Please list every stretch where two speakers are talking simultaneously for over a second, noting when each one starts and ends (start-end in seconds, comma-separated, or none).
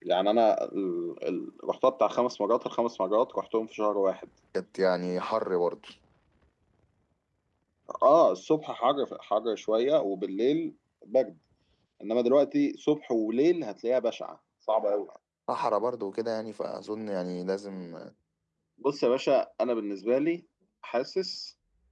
none